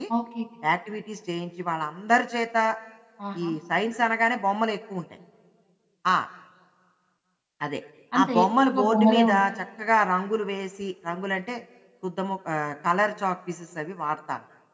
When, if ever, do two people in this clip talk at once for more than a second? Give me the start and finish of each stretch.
8.2-9.4

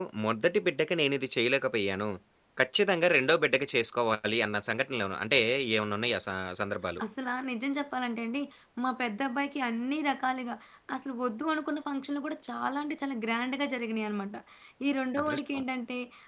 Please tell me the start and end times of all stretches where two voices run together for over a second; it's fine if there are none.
none

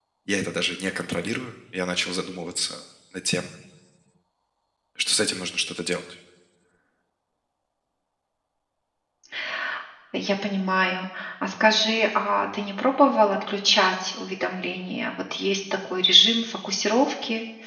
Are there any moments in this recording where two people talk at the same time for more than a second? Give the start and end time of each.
none

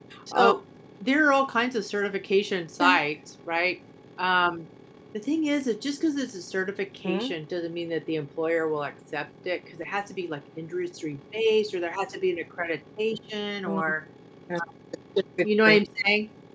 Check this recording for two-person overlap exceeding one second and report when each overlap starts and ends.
none

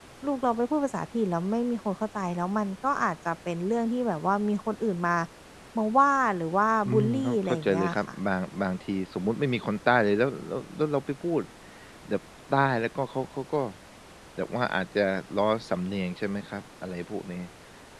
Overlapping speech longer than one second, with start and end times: 6.9-8.2

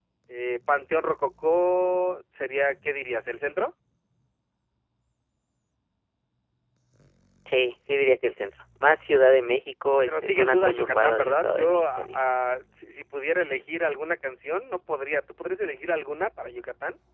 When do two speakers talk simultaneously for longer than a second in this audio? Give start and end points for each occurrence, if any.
10.1-12.2

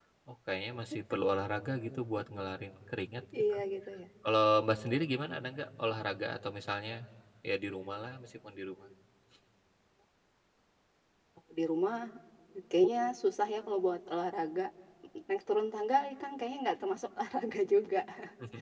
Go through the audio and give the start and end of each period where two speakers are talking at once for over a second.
none

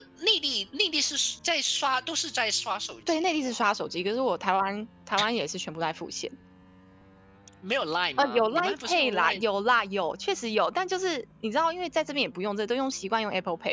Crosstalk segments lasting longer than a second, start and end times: 8.2-9.4

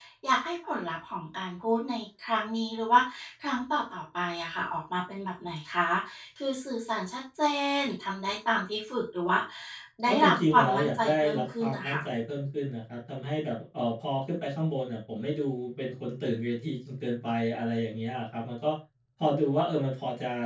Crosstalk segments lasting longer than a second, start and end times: 10.1-12.0

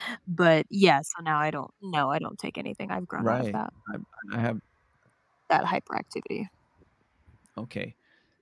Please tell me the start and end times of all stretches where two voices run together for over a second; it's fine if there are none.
none

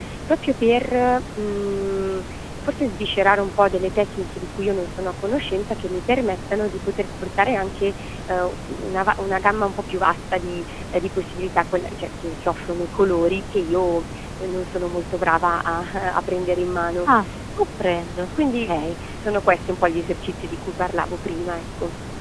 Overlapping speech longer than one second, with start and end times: none

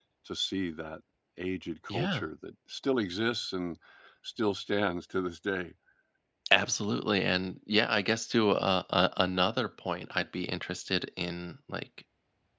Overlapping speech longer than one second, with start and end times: none

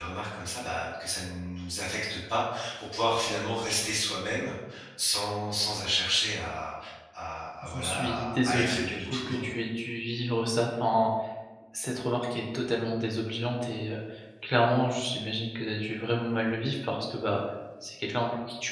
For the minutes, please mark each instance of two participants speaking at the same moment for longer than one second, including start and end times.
7.7-9.5

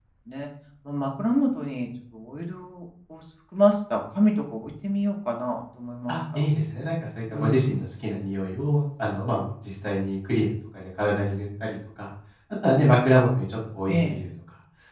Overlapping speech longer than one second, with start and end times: none

